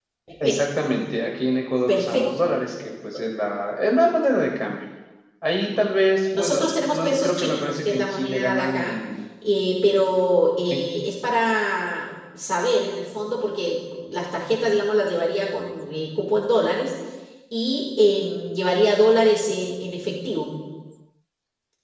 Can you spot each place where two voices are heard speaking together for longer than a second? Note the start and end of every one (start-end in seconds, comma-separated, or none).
6.3-8.9